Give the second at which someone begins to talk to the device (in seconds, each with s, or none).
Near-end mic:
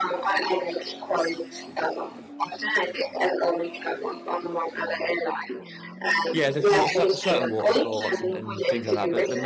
6.3 s